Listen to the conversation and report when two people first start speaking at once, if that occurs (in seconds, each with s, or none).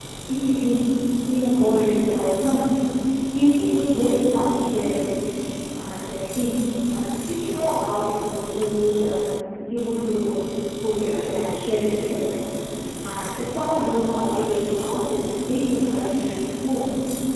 none